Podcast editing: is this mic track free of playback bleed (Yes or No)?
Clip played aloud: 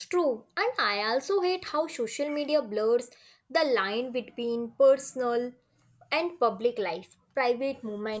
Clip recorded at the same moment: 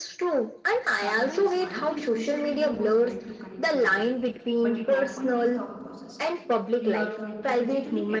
No